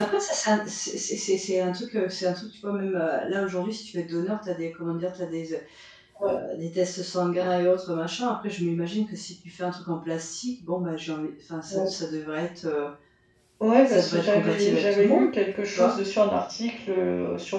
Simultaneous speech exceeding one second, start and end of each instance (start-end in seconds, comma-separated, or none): 13.8-15.2